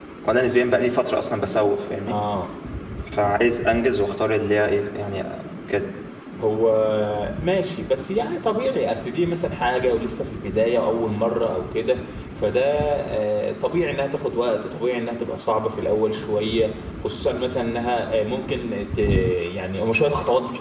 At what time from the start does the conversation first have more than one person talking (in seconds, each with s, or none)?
none